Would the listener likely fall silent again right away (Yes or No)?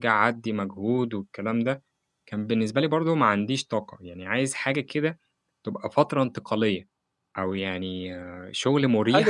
No